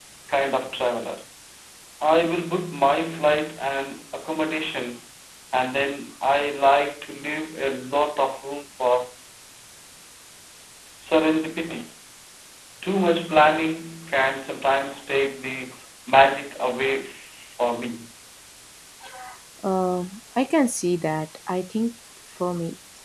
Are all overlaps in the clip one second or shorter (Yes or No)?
Yes